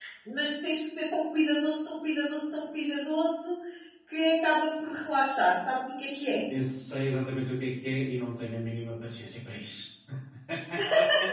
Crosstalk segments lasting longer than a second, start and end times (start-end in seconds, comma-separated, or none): none